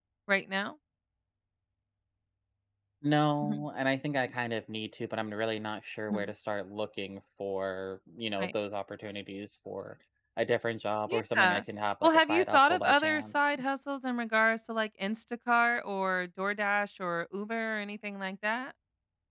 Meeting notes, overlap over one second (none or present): present